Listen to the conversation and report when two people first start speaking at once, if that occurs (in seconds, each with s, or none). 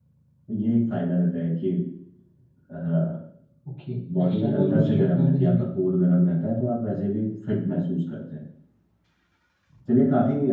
4.2 s